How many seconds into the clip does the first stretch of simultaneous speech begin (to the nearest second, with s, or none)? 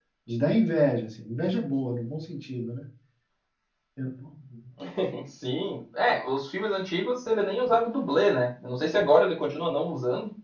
none